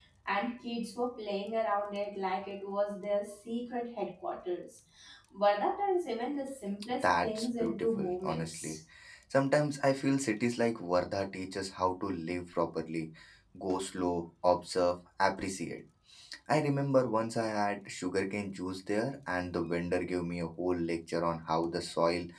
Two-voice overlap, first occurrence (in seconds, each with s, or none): 6.8 s